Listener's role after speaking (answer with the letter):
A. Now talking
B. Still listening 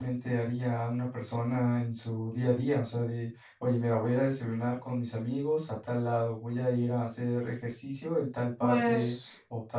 B